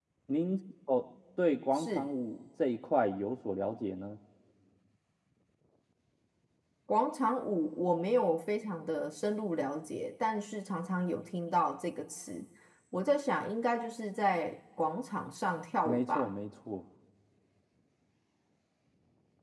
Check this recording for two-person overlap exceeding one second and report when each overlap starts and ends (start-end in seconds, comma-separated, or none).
none